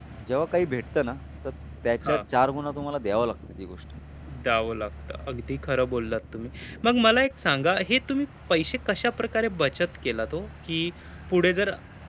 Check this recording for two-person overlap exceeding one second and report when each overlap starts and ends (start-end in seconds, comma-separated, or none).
none